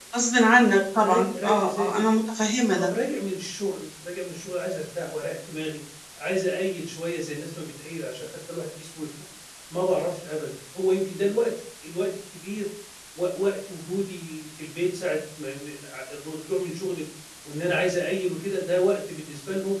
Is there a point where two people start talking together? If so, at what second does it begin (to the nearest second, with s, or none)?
1 s